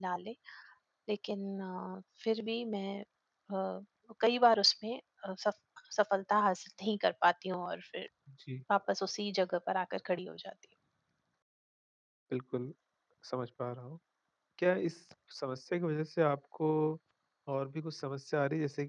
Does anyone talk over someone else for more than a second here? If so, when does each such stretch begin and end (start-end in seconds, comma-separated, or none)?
none